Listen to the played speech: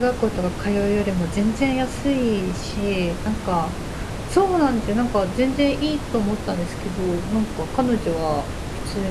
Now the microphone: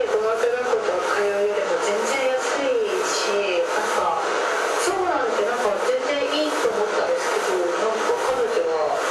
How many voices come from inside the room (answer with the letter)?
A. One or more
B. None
B